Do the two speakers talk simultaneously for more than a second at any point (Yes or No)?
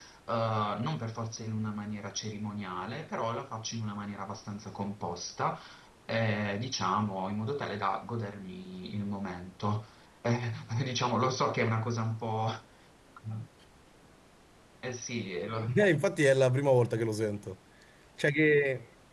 No